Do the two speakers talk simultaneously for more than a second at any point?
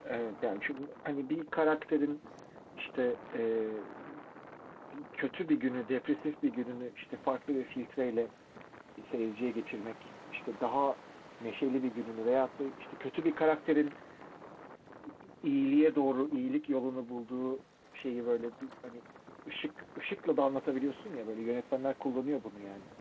No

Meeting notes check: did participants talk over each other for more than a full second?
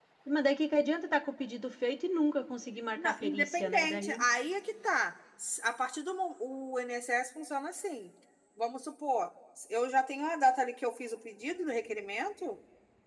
Yes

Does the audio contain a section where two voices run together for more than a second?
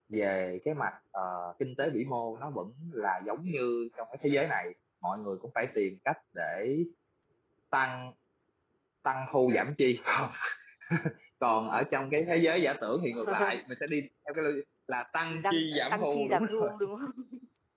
Yes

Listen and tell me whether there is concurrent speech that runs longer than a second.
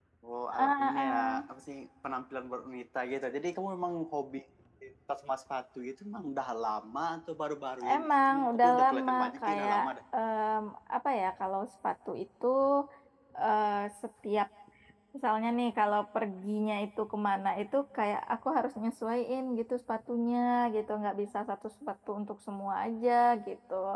Yes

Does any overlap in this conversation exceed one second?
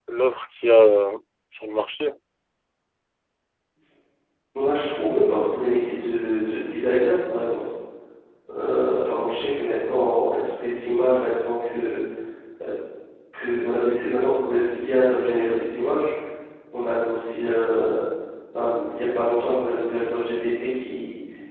No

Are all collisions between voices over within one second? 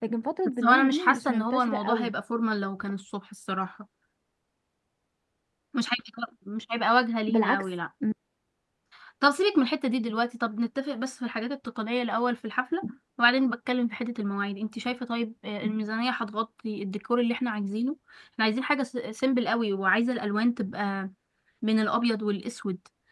No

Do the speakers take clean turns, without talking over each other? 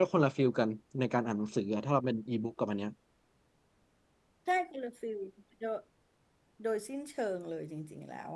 Yes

